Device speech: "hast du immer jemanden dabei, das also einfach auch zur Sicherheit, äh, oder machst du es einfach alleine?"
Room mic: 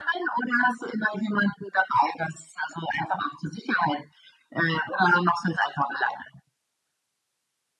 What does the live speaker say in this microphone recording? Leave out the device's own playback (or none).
none